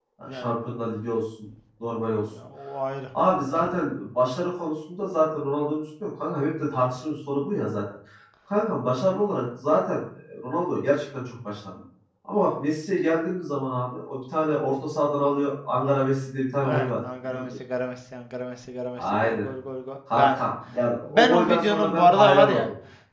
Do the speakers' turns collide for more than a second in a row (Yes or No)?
Yes